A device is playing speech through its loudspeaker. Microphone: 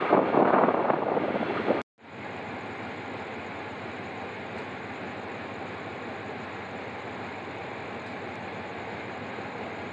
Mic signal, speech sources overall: neither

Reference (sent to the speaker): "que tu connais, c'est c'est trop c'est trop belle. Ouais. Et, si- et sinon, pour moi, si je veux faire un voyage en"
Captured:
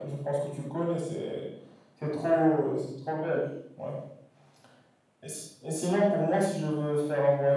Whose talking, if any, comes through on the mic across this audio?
echo only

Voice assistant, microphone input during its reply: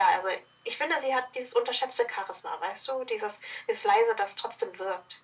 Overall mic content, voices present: echo only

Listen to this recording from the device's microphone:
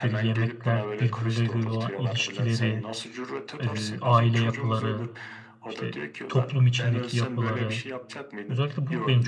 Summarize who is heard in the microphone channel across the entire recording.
both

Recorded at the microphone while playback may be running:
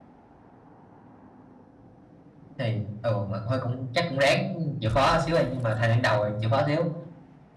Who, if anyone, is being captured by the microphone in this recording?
user only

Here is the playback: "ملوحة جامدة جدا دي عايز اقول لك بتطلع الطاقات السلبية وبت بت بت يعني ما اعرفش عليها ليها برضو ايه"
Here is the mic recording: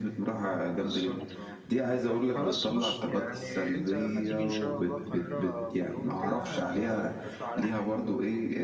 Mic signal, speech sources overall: both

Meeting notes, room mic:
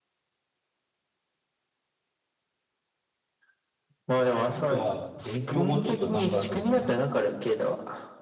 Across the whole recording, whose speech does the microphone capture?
both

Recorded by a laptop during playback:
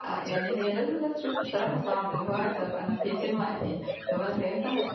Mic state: both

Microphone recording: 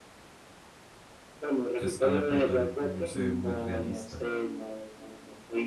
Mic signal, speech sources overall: both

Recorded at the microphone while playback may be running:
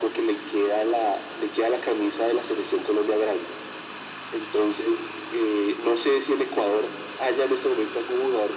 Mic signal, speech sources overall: echo only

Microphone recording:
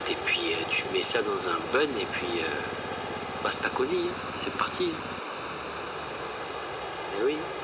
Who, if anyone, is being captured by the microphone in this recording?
echo only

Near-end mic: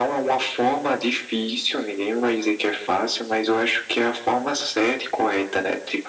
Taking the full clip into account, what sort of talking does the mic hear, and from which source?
echo only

